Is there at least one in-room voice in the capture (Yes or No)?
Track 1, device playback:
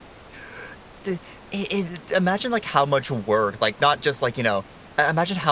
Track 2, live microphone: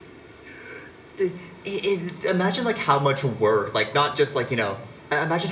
No